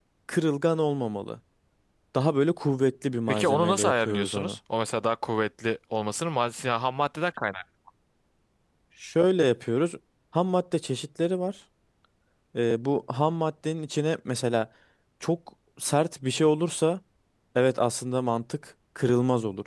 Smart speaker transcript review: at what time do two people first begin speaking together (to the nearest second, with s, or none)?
3 s